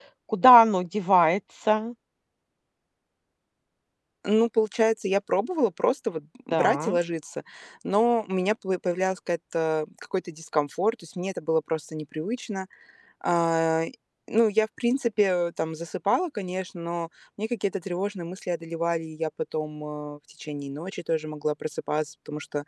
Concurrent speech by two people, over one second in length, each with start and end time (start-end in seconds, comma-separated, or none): none